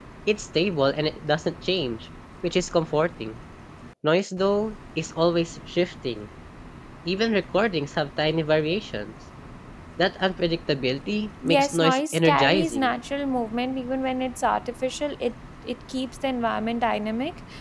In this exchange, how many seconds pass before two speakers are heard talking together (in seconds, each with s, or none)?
11.4 s